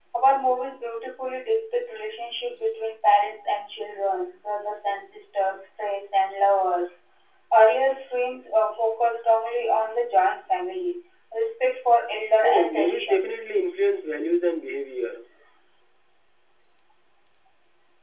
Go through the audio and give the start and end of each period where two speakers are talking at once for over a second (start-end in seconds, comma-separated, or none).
12.3-13.7